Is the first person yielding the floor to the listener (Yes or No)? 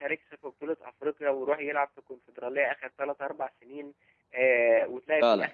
No